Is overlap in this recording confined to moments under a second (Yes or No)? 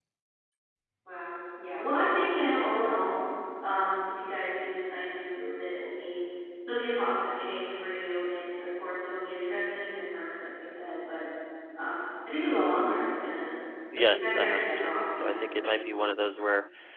No